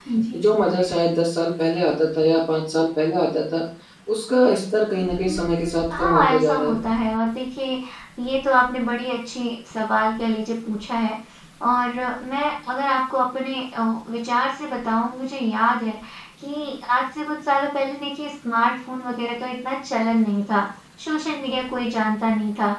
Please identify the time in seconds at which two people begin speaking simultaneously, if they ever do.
5.3 s

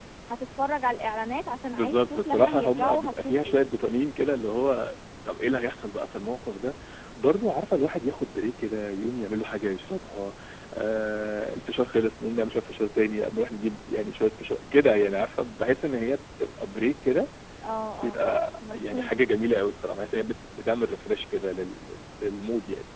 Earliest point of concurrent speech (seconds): 1.7 s

